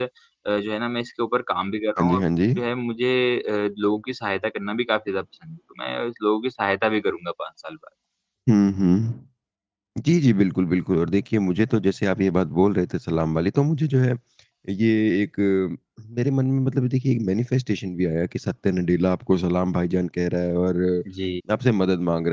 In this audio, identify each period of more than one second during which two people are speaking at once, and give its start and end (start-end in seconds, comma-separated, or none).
none